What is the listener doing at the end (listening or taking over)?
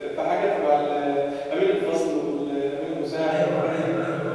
taking over